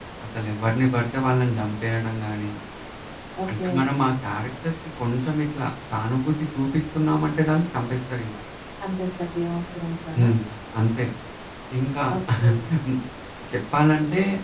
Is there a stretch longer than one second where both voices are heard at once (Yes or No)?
No